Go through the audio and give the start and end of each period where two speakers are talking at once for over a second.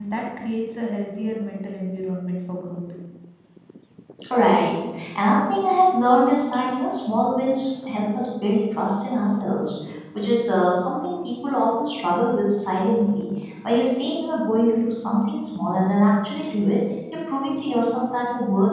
none

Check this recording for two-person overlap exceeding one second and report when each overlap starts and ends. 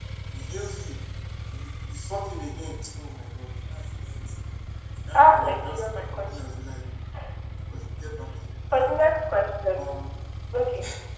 5.1-6.4

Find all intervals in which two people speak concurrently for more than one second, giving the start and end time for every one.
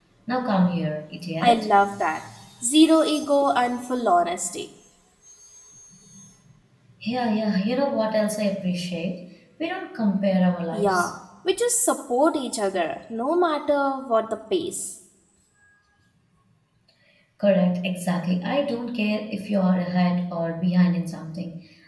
none

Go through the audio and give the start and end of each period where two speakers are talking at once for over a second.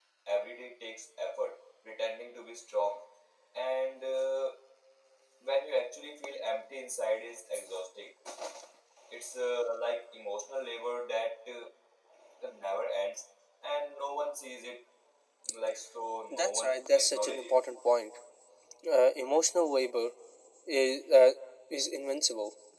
16.3-17.5

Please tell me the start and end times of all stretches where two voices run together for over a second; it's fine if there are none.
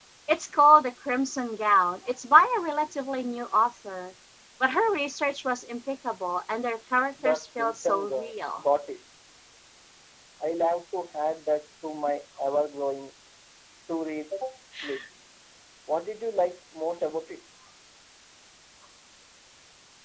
7.2-8.6

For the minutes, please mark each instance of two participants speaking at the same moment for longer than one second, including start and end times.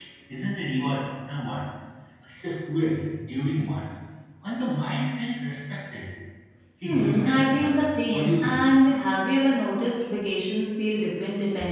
6.8-8.6

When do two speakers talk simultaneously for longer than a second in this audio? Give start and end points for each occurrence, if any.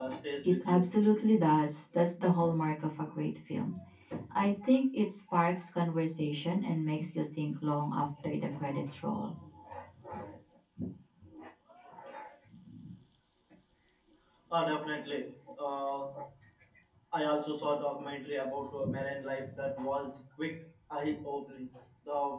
none

